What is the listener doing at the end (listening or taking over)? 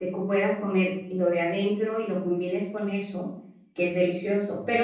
listening